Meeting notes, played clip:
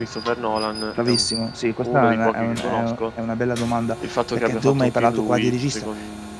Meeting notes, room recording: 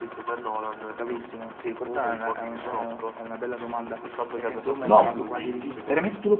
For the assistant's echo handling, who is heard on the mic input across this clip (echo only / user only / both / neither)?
both